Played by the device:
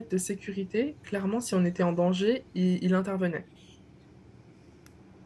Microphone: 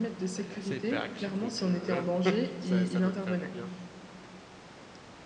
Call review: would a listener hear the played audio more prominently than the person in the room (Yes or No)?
Yes